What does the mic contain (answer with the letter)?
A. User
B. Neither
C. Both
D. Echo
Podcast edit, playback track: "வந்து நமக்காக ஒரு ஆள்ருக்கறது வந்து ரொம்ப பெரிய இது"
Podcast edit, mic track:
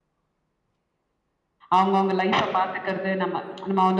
A